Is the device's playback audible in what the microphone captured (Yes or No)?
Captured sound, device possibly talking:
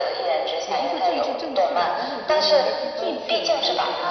Yes